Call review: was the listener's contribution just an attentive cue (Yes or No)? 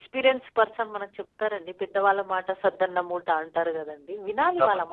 No